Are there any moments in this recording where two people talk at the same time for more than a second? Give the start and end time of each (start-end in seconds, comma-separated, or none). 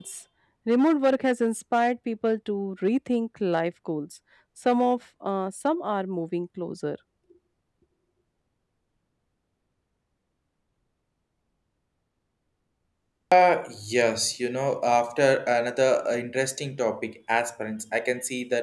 none